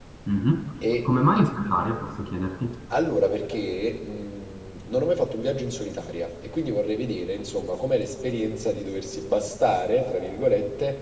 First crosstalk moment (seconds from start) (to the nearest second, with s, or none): none